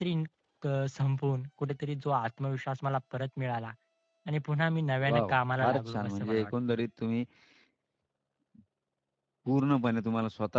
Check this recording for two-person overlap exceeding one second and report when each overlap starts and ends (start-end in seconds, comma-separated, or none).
5.1-6.5